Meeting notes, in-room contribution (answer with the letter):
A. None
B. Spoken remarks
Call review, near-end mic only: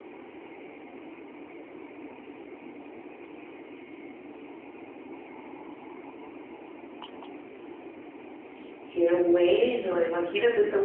B